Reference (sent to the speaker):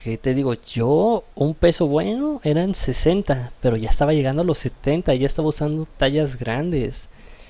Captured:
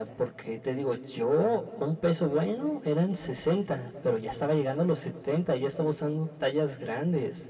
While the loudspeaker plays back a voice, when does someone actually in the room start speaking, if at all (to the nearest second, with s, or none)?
none